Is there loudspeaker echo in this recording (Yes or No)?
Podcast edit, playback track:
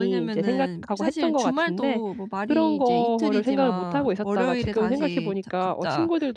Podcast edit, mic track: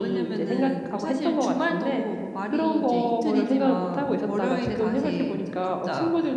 Yes